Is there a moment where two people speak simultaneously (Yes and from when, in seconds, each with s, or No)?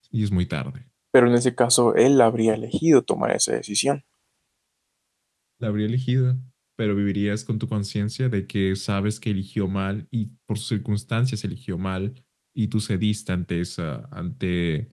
No